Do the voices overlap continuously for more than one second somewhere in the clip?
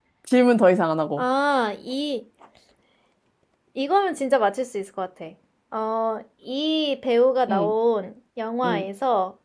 No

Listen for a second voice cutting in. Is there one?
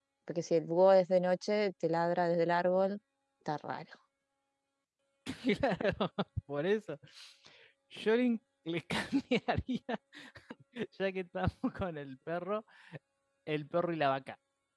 No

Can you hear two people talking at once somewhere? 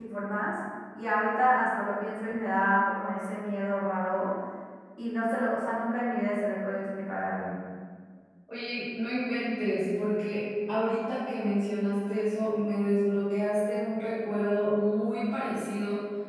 No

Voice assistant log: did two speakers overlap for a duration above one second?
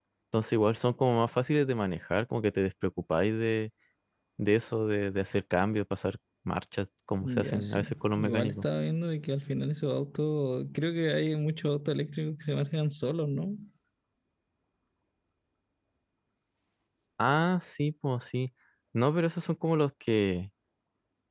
Yes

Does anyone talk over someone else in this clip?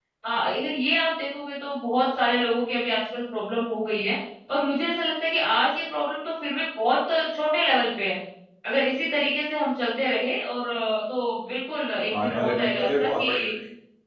Yes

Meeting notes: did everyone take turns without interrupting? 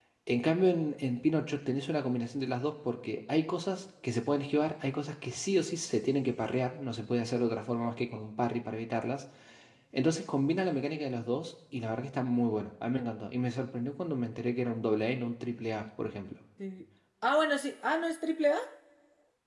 Yes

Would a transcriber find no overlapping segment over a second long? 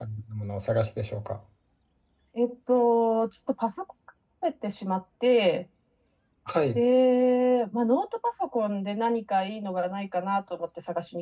Yes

